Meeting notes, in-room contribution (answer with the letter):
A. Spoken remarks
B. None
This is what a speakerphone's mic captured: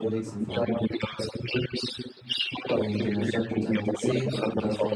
A